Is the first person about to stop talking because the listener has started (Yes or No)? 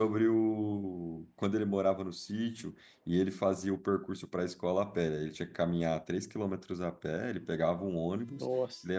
No